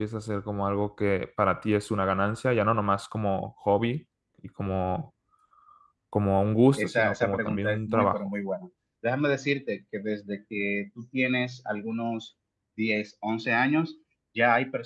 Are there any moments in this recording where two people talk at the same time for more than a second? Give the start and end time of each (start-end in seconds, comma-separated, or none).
6.8-8.3